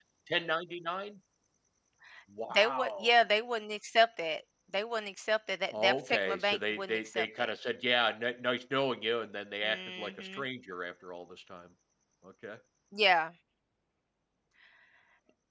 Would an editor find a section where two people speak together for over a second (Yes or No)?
Yes